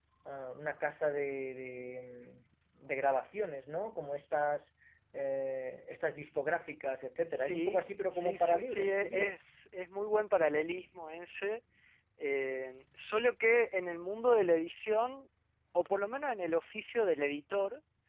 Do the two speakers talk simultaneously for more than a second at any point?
Yes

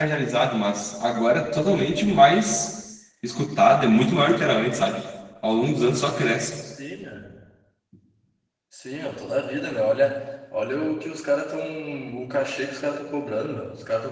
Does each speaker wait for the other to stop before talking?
Yes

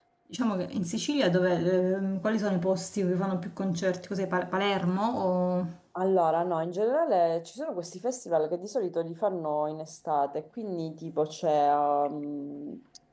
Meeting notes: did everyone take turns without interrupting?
Yes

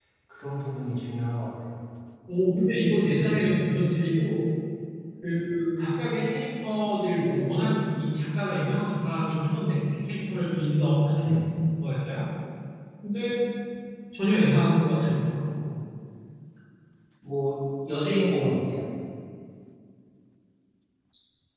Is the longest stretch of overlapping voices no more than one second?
Yes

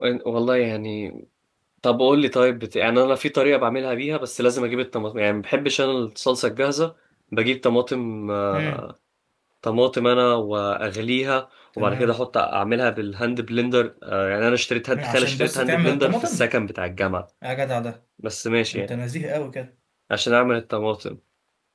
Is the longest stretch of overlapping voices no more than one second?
No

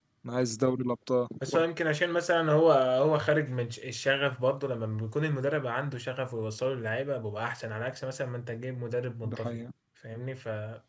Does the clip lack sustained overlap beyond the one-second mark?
Yes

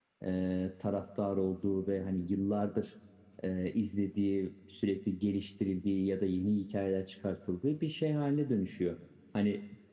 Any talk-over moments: No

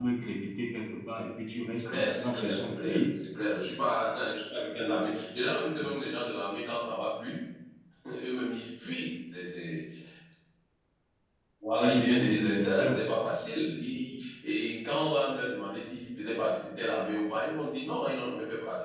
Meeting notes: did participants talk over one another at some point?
Yes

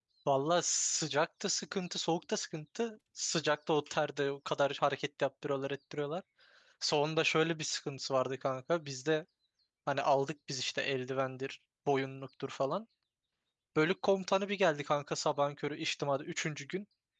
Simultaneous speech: No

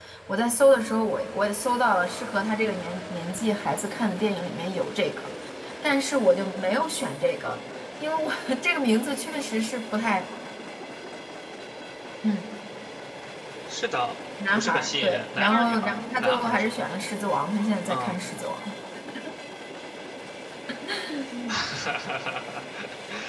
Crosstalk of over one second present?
Yes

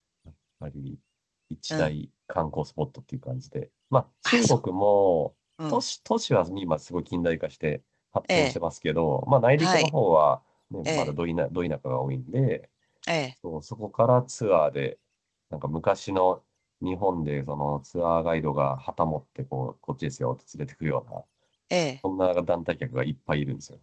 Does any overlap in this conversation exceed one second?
No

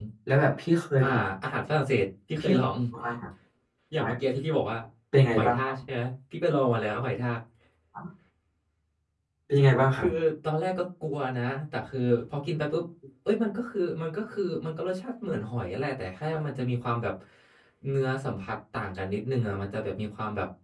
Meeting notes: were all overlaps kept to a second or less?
Yes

